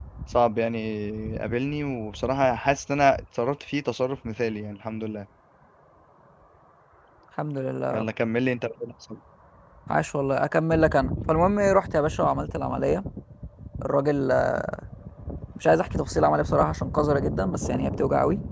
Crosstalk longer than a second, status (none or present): none